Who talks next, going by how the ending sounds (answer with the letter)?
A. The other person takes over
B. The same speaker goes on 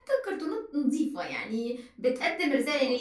B